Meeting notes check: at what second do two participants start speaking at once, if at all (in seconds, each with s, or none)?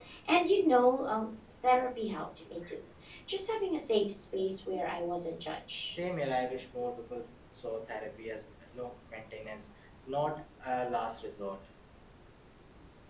none